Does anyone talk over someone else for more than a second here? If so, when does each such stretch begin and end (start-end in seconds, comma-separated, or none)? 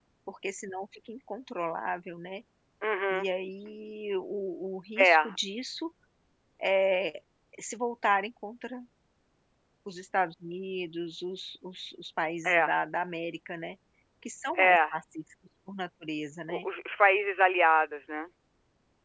none